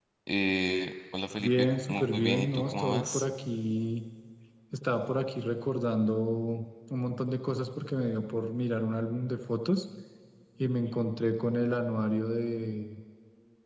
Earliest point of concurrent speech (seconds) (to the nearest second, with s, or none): 1 s